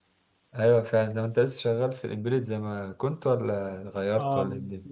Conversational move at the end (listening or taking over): taking over